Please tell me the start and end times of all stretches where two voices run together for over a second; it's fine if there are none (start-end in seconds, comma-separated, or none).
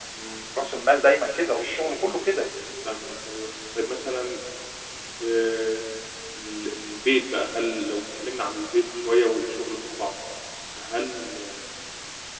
none